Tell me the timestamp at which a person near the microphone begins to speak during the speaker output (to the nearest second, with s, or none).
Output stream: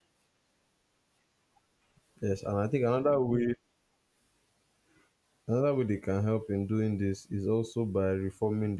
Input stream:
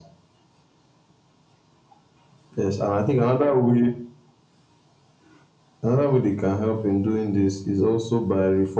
none